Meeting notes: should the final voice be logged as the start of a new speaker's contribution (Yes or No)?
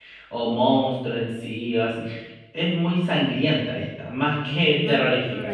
No